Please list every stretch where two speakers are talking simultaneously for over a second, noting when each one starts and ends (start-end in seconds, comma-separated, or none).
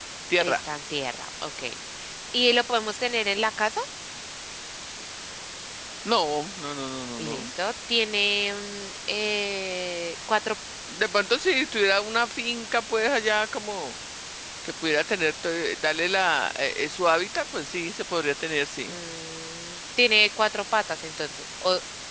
none